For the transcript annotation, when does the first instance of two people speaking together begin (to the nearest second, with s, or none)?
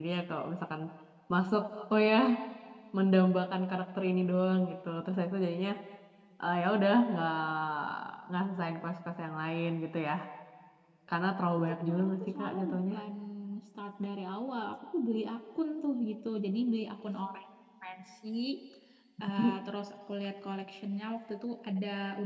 12 s